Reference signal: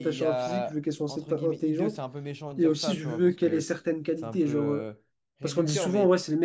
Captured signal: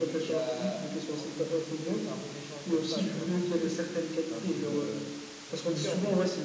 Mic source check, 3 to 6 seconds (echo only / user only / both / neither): echo only